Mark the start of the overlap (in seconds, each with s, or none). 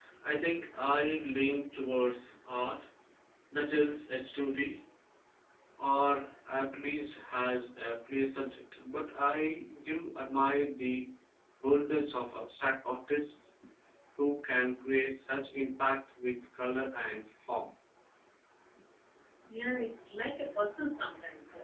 none